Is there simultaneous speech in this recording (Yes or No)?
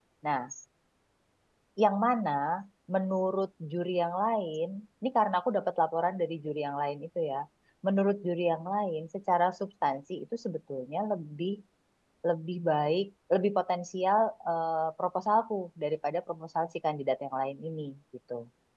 No